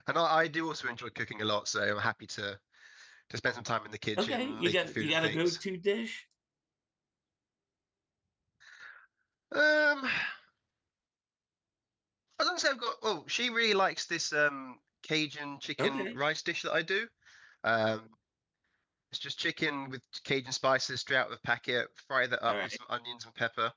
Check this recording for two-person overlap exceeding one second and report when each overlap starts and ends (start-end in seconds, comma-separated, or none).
4.2-5.6